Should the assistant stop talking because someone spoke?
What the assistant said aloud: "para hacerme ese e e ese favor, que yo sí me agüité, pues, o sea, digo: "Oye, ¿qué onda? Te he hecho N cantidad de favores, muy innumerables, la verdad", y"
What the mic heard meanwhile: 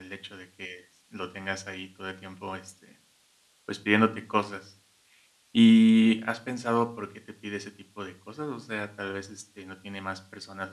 Yes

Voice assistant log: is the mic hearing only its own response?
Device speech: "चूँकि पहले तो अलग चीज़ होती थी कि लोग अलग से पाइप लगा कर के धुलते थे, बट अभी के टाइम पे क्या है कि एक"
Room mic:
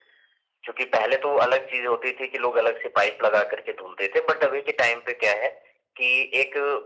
Yes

